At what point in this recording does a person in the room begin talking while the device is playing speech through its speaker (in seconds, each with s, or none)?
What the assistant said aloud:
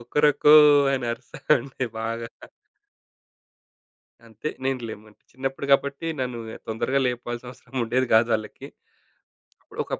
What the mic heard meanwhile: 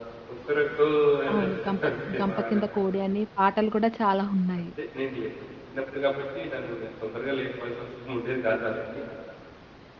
1.3 s